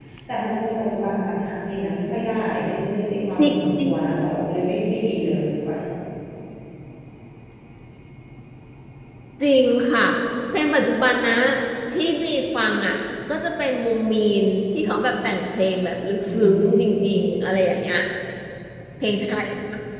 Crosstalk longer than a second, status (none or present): none